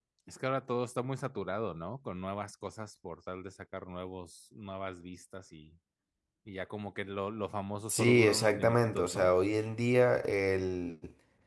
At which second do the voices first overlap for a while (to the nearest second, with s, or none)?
8 s